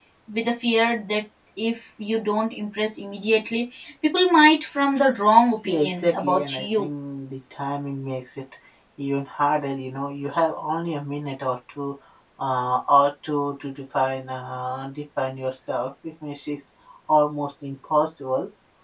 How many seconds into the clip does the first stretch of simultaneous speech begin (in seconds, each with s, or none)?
5.6 s